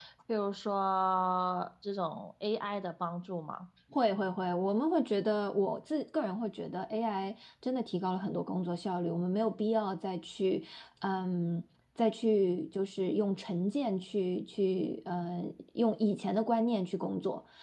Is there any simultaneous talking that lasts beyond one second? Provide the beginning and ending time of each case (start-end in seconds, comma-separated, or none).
none